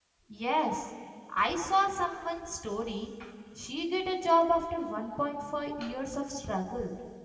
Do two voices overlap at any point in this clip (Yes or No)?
No